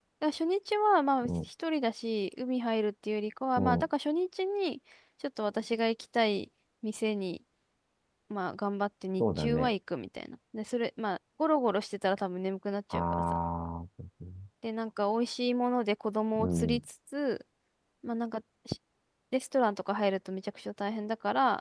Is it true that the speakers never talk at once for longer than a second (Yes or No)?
Yes